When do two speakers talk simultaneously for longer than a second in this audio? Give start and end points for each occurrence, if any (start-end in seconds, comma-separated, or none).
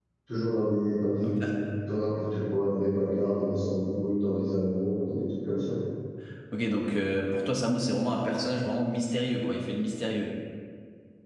none